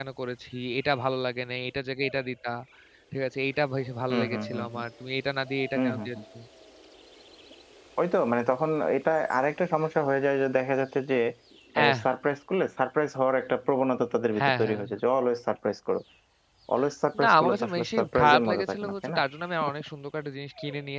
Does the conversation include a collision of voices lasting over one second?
Yes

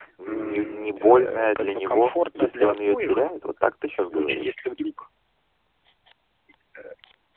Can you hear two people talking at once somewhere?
Yes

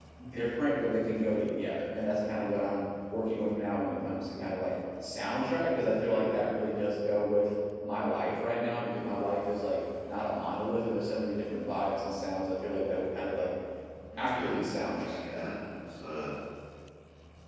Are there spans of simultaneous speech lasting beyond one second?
Yes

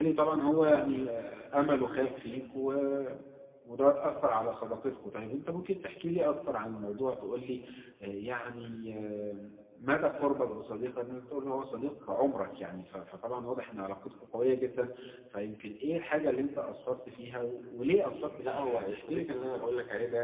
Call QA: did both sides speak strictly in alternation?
No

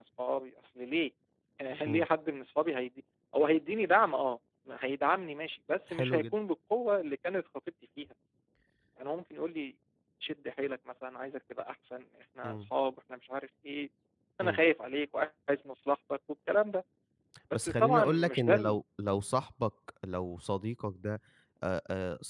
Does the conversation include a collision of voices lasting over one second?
Yes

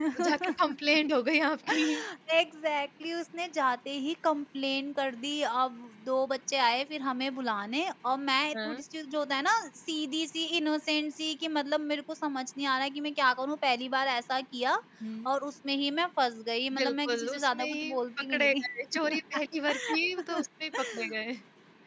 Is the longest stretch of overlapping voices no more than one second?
No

